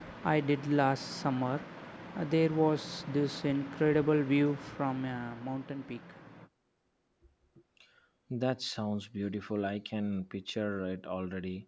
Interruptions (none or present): none